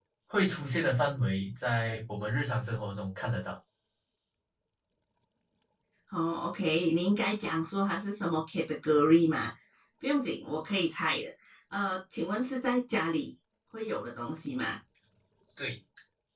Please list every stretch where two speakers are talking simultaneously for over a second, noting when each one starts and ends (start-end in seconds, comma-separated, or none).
none